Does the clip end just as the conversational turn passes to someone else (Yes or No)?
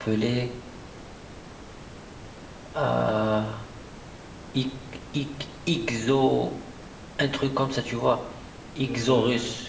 No